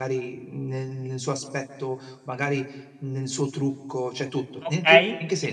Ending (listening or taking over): taking over